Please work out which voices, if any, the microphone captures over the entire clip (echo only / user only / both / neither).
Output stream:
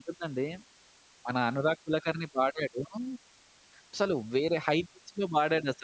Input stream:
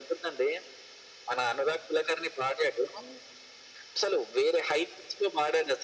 echo only